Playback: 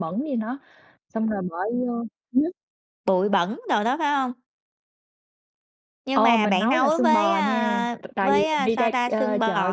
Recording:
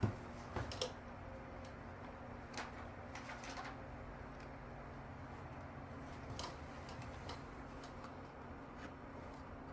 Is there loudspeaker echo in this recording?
No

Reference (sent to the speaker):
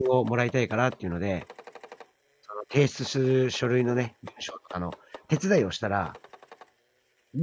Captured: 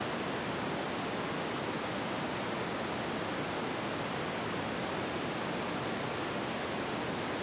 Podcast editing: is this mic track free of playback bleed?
Yes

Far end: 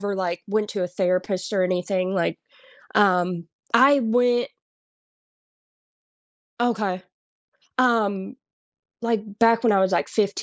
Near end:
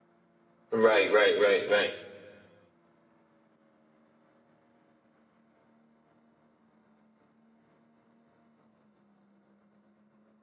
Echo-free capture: Yes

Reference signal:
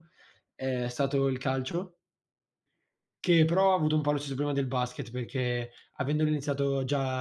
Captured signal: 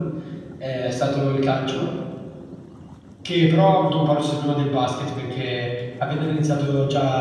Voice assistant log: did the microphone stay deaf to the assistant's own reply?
No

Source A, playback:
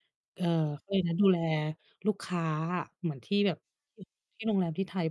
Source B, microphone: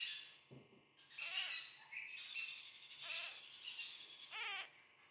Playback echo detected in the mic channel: No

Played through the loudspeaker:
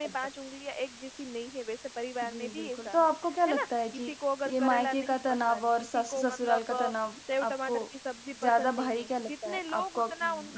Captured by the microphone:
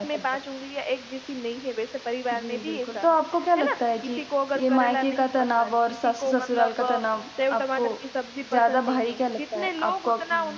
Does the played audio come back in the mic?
Yes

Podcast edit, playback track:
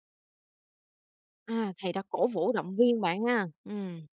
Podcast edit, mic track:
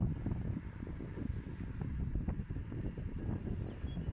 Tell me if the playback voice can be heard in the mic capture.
No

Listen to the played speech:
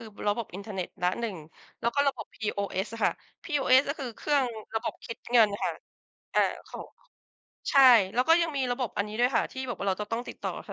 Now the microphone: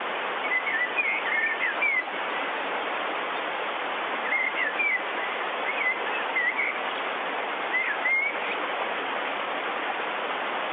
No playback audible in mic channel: Yes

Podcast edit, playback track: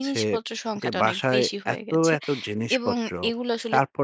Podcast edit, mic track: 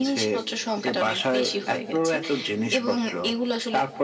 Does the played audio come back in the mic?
Yes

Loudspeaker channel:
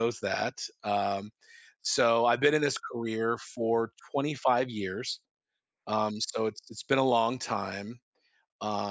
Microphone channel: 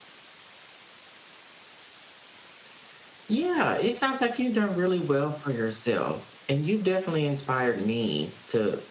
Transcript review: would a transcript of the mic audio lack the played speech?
Yes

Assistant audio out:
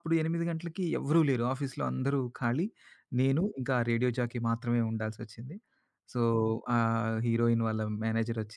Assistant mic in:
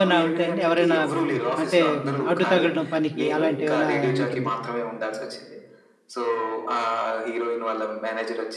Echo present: Yes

